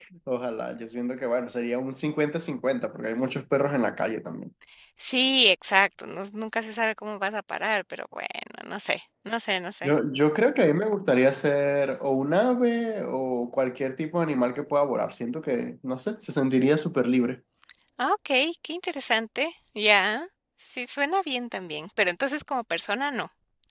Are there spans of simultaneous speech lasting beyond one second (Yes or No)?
No